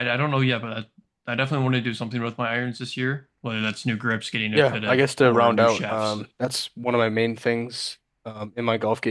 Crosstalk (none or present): present